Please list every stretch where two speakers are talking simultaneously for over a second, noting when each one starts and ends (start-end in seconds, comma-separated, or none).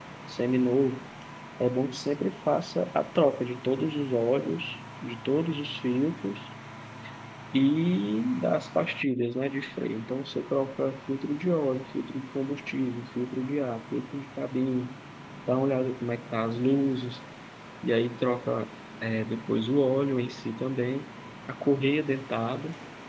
none